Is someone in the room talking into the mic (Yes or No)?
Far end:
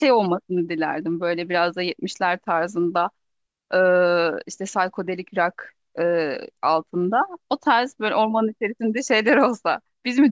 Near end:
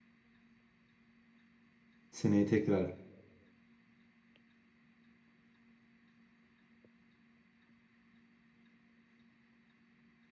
Yes